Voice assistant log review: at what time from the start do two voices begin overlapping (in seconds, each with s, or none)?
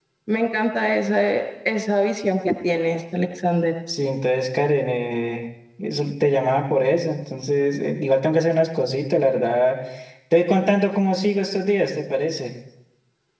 none